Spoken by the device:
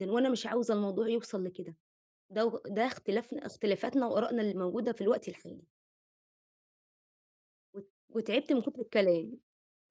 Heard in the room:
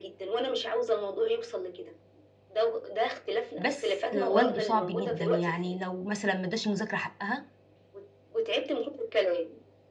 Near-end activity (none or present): present